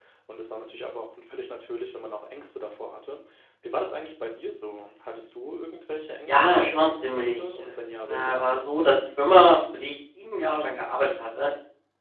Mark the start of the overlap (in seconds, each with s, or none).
6.3 s